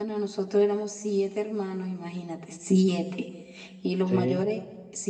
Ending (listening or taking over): listening